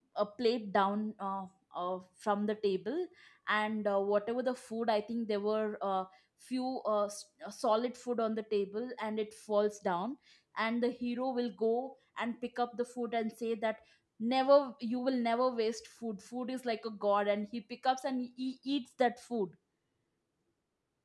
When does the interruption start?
none

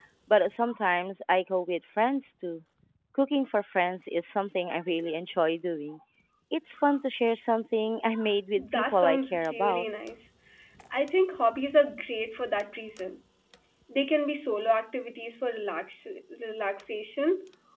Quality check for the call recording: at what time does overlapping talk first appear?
8.6 s

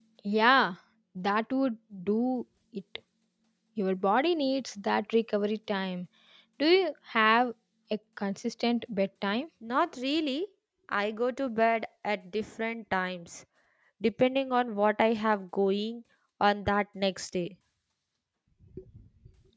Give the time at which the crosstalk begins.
none

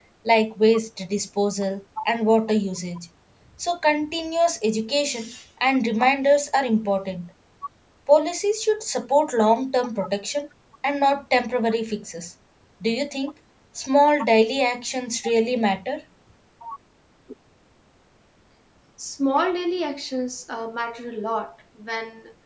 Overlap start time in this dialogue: none

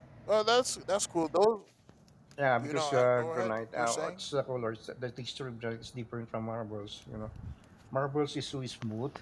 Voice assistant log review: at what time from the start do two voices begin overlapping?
2.6 s

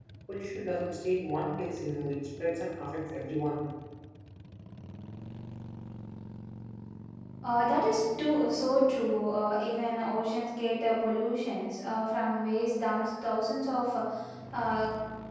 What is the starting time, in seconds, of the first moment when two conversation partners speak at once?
none

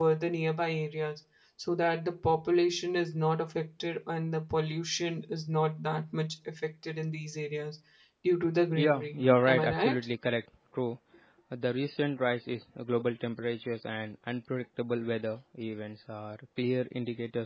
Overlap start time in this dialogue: 8.8 s

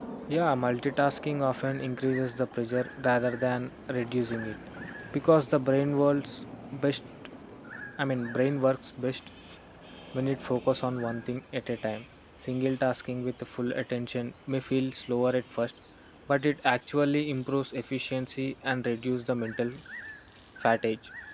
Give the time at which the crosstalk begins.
none

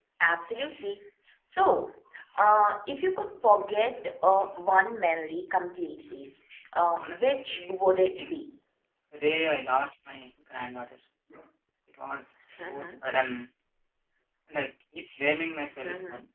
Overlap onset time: 7.0 s

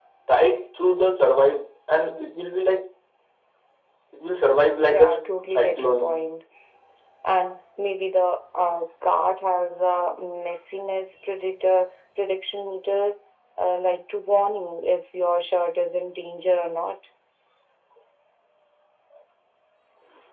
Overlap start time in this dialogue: 4.9 s

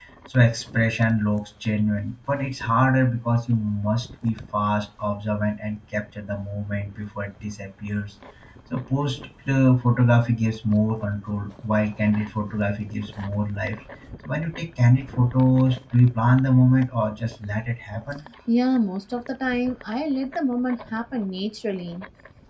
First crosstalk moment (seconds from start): none

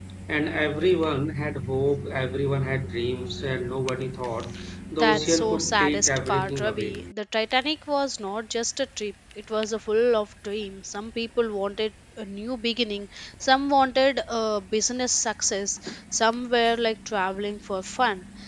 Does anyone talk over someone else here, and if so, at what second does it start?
5.0 s

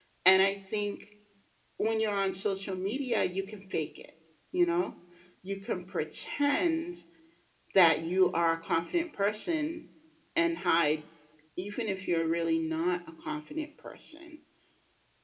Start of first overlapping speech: none

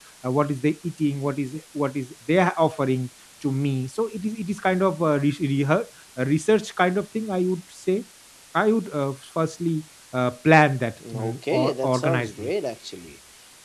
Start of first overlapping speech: 11.0 s

